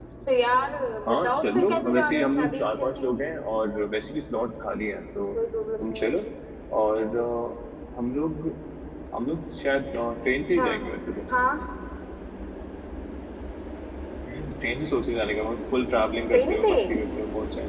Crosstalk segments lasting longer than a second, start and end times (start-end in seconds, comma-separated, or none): 1.1-3.2